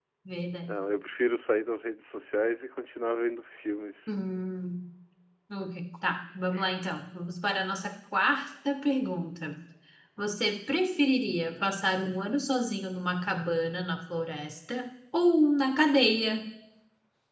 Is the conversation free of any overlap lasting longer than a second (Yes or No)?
Yes